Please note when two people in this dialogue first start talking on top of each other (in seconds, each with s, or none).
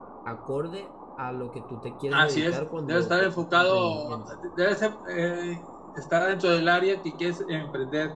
2.1 s